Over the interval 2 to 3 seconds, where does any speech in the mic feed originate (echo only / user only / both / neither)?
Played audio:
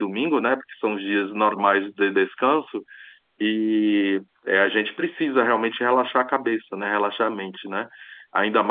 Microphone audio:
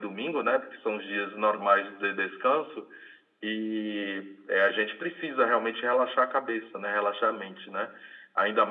echo only